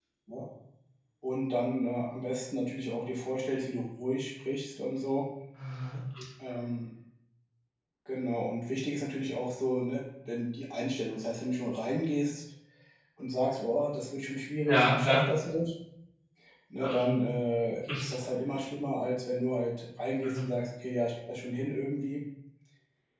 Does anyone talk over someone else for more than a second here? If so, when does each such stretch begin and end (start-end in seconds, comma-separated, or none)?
none